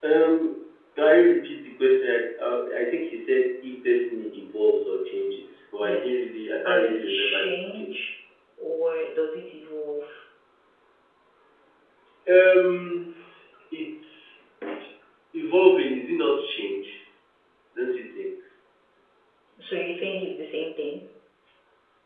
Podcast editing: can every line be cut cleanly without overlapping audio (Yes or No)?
No